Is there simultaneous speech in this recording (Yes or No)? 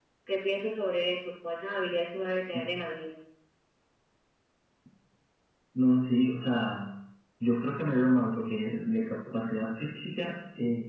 No